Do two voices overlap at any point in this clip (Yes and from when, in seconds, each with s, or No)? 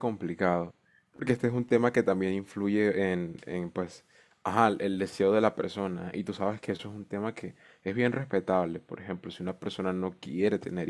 No